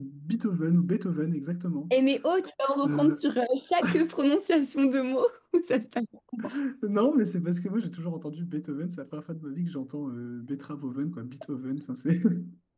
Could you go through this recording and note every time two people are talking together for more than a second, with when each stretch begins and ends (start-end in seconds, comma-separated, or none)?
none